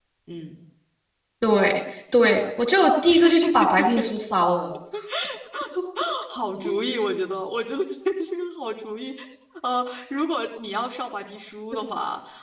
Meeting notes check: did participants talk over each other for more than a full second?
No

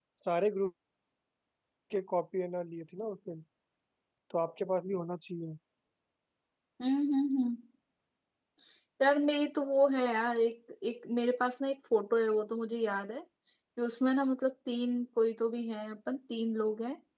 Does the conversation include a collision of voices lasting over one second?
No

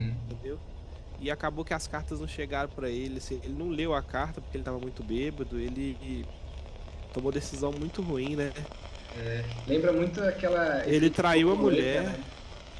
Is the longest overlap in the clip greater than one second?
Yes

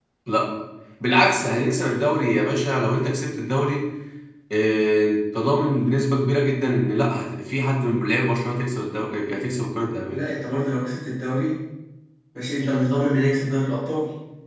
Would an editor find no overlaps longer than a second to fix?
Yes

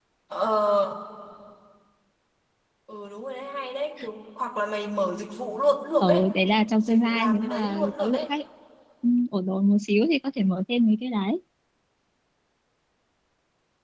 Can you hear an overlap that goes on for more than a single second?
Yes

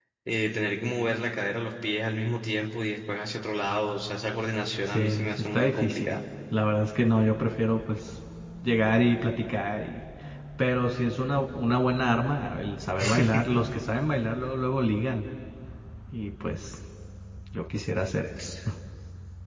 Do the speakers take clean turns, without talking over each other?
No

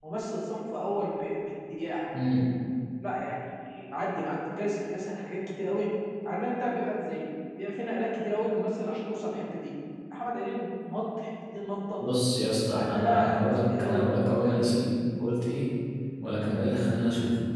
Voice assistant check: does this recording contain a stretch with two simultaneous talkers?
Yes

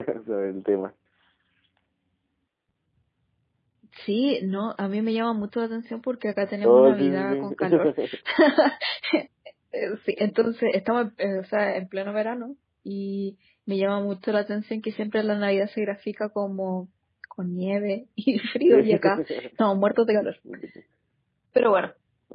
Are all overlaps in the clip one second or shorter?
No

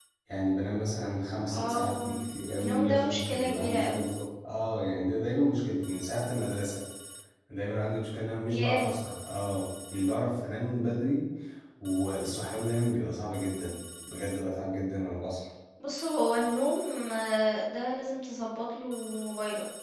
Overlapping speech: Yes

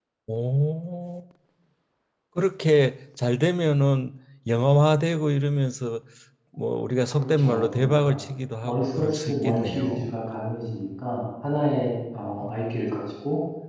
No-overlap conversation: No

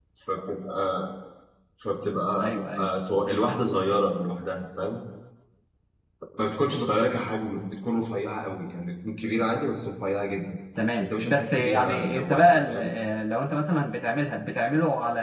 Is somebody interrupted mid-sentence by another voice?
Yes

